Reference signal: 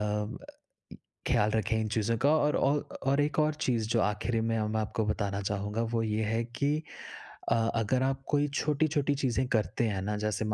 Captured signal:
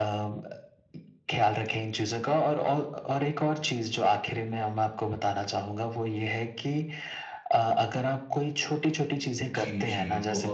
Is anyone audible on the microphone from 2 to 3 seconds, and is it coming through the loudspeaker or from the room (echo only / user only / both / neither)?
echo only